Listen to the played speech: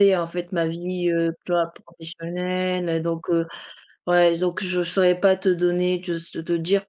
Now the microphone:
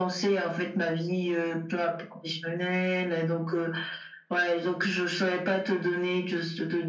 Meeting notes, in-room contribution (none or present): none